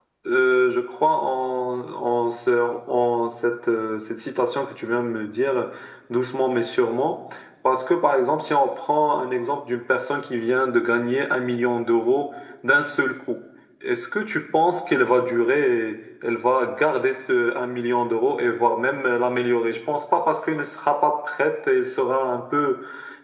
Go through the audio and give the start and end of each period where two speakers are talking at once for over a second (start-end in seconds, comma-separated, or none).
none